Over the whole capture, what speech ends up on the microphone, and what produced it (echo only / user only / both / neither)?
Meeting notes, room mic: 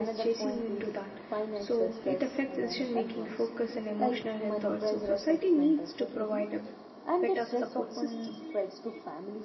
both